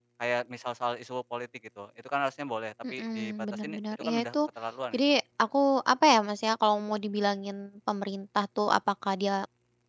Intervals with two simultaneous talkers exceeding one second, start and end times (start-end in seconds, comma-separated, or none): 2.9-4.3